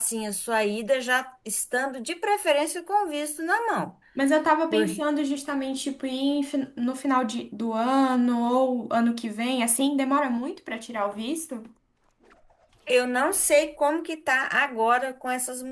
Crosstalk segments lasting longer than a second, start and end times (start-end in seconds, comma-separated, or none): none